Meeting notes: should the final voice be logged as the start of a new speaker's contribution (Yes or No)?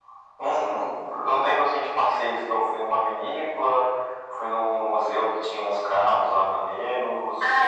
Yes